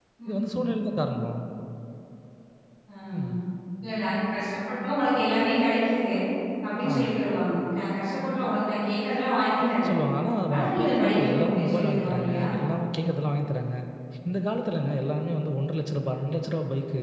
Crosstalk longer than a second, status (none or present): present